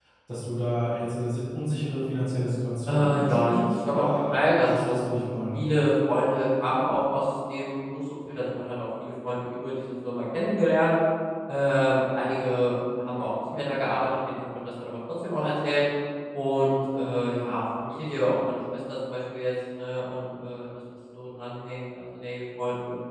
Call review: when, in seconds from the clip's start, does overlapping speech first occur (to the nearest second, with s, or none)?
3 s